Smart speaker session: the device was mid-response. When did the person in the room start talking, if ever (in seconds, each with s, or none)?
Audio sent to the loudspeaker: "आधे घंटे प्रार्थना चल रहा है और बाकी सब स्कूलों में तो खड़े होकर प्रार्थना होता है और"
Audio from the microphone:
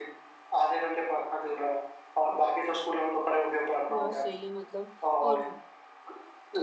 4.0 s